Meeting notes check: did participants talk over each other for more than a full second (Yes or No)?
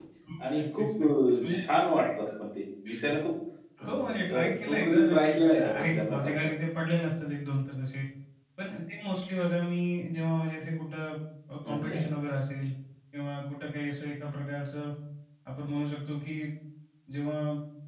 Yes